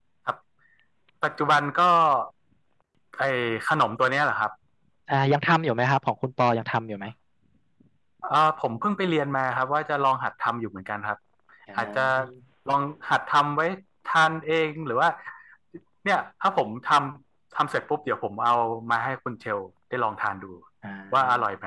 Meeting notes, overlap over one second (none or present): none